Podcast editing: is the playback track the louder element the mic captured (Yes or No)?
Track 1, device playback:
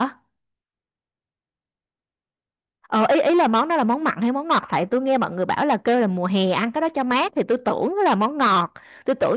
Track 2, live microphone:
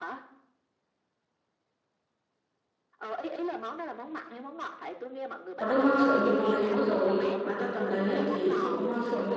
No